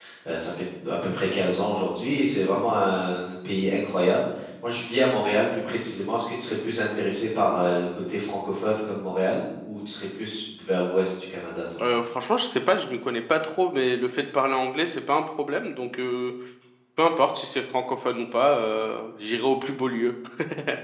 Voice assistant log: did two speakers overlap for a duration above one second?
No

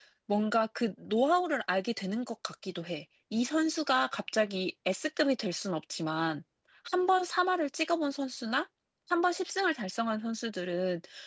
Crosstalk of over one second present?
No

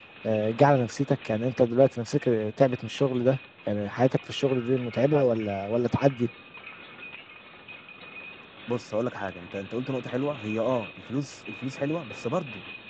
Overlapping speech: No

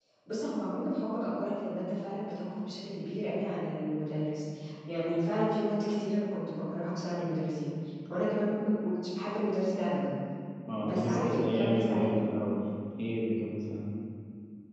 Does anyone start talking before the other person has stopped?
Yes, from 10.8 s

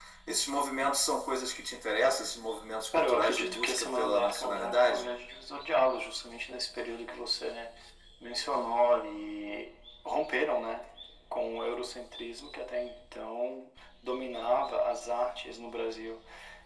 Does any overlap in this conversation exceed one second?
Yes, from 2.9 s

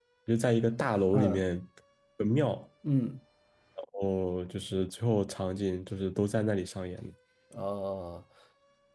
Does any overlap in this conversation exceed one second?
No

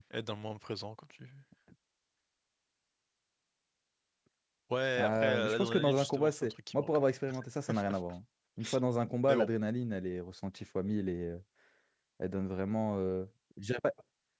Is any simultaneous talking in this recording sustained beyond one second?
Yes, from 5.0 s

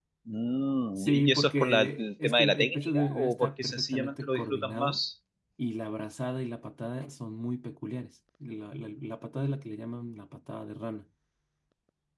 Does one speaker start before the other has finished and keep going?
Yes, from 1.0 s

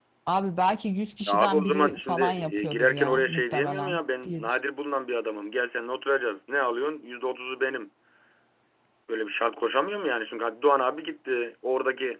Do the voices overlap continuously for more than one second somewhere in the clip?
Yes, from 1.3 s

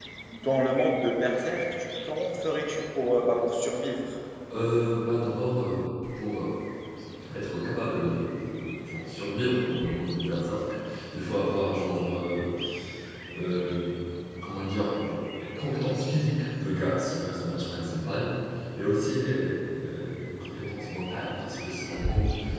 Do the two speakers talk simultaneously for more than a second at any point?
No

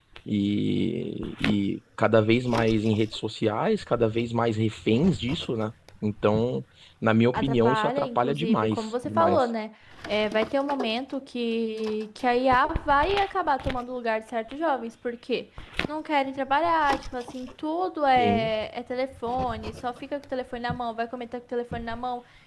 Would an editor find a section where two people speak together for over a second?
Yes, from 7.3 s

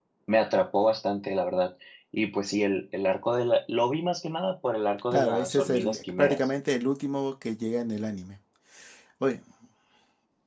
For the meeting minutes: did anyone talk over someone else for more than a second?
Yes, from 5.1 s

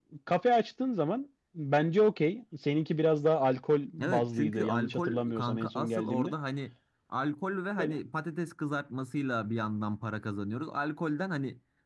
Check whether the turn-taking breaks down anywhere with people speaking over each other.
Yes, from 4.0 s

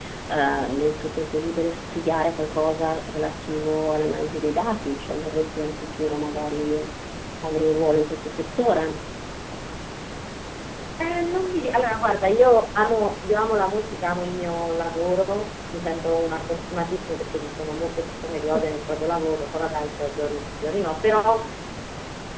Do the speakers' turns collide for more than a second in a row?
No

